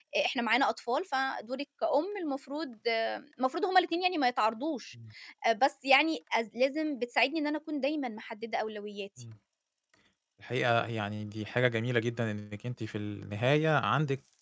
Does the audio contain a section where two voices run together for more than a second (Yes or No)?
No